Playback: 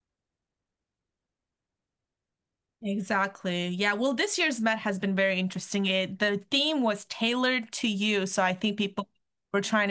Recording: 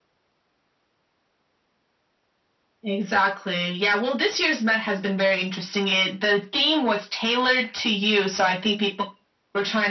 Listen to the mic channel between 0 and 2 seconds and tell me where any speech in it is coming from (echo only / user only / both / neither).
neither